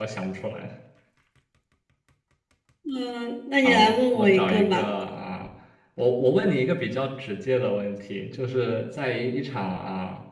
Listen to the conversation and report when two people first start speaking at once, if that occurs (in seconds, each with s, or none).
3.6 s